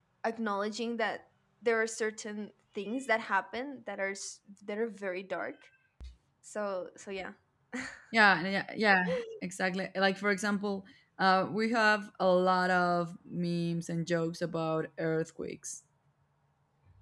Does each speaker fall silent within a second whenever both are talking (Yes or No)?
Yes